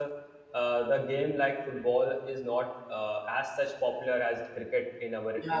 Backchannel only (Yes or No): No